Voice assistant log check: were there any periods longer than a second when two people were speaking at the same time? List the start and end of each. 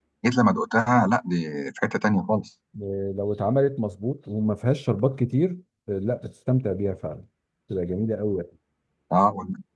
none

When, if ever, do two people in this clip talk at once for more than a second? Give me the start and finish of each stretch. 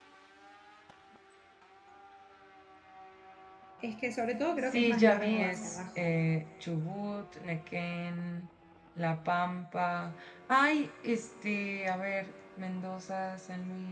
4.6-6.1

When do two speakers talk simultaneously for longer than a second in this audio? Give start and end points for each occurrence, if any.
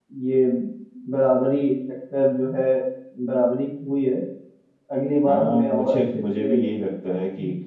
5.2-6.5

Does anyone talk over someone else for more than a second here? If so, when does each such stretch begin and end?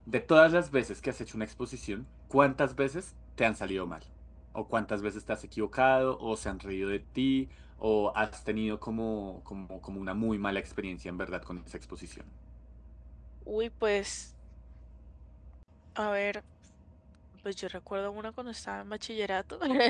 none

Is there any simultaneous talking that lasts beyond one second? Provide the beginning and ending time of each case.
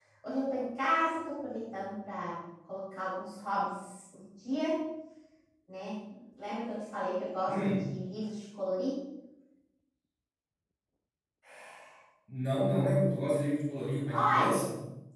none

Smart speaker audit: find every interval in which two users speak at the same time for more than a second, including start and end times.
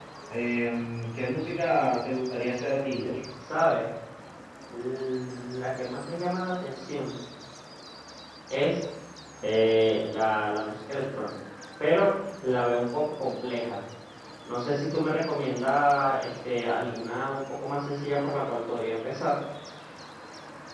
none

